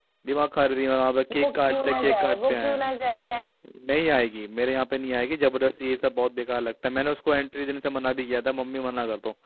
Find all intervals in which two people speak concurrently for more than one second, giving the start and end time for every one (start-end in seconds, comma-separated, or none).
1.4-2.8